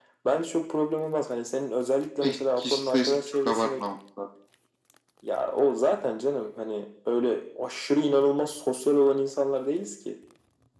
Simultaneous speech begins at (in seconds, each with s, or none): 2.2 s